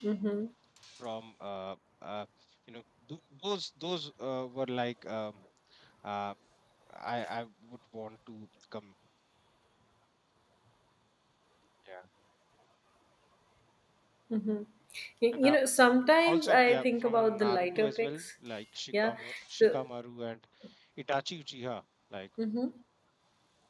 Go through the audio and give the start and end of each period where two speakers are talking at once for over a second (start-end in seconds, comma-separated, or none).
16.2-18.2